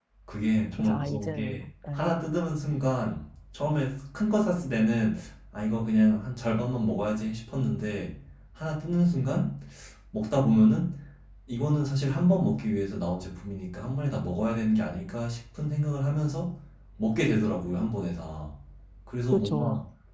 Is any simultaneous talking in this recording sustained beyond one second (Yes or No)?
Yes